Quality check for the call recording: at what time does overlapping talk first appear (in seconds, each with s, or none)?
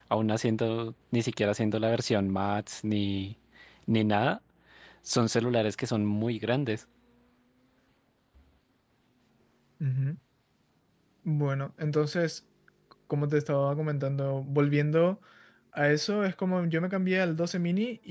none